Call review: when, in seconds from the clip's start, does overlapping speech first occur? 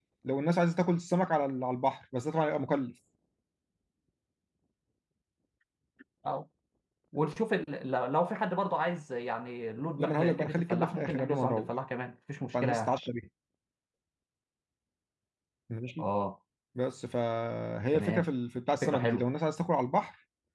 10.0 s

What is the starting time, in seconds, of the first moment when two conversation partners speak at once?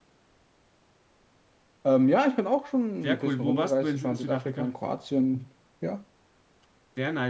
3.0 s

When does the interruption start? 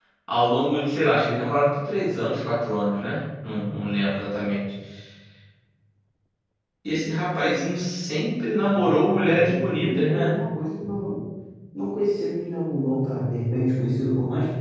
8.6 s

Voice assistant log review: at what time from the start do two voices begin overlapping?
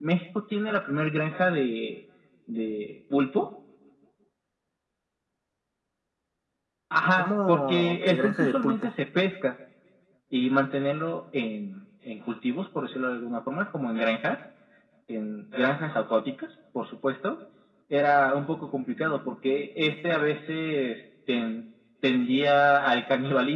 7.2 s

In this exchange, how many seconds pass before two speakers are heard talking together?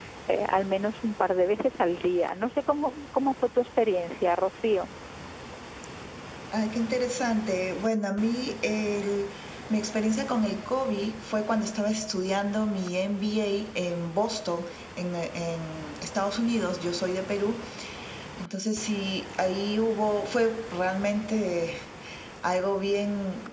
none

